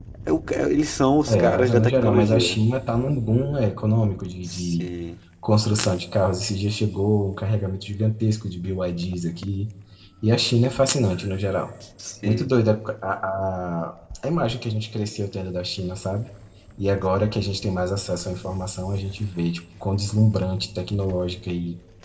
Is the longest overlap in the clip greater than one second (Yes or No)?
Yes